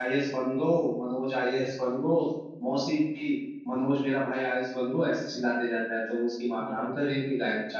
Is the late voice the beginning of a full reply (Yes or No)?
No